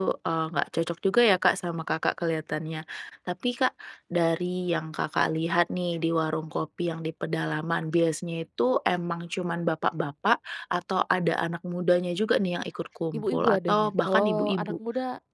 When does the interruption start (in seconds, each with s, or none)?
13.1 s